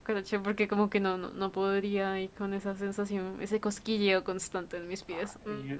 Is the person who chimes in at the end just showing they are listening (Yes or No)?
No